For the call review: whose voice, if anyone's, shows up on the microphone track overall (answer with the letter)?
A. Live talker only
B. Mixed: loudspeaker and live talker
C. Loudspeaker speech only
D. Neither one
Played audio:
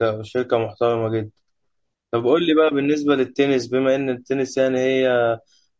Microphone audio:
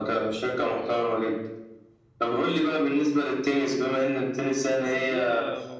B